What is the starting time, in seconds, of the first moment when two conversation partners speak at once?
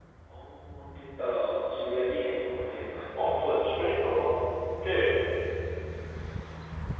none

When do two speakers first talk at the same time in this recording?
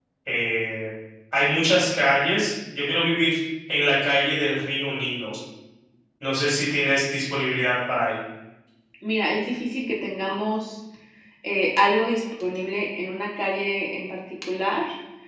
none

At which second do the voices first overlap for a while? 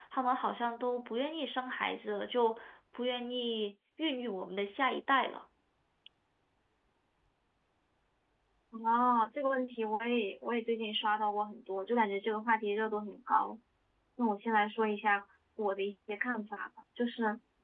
none

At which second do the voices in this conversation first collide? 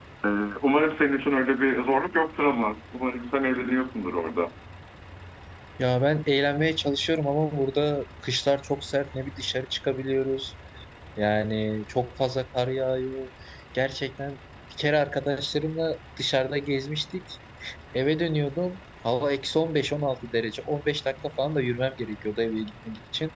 none

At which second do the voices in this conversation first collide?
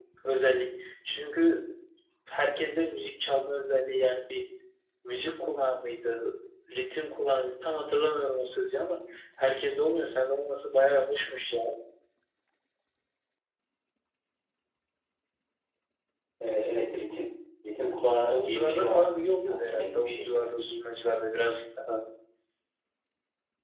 18.3 s

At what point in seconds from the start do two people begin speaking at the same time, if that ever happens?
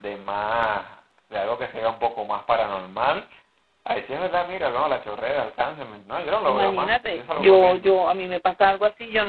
6.5 s

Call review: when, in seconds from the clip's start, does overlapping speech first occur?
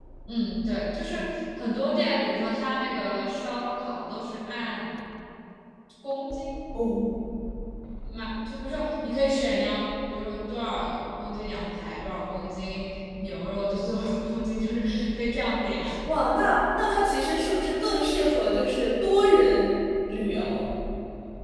none

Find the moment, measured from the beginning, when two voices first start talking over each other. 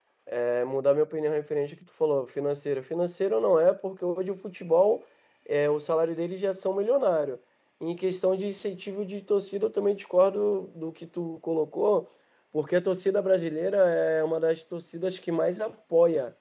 none

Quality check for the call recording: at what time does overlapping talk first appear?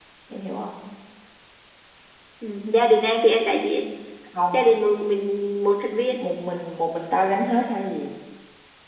none

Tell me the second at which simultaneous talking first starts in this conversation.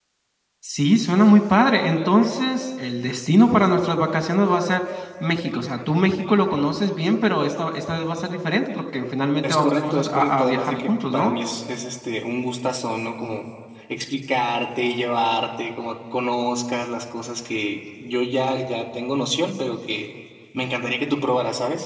9.4 s

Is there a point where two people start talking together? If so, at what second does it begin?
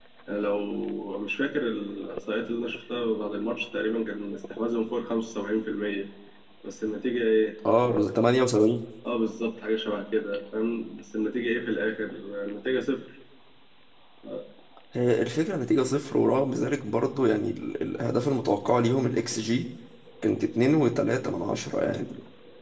none

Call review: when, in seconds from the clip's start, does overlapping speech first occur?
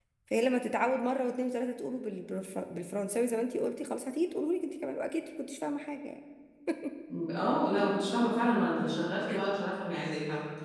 none

